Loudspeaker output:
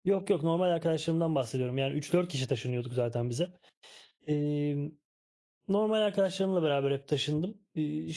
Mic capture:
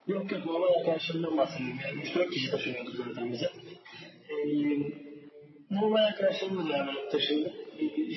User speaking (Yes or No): No